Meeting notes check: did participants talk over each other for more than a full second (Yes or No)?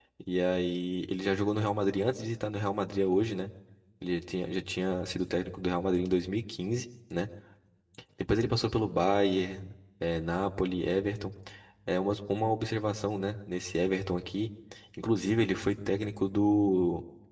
No